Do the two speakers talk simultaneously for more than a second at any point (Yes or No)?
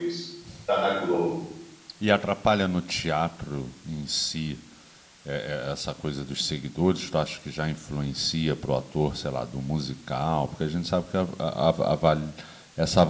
No